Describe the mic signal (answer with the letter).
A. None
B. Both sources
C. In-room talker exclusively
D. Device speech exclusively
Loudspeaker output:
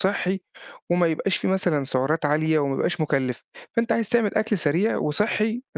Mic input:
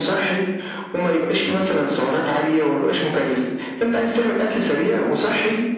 D